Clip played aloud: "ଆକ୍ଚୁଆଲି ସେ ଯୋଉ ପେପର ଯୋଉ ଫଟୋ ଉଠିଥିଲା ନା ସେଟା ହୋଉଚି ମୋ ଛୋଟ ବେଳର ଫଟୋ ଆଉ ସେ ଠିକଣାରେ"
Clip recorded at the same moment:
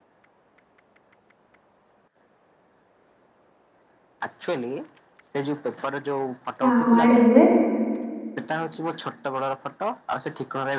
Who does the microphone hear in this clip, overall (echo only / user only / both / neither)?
both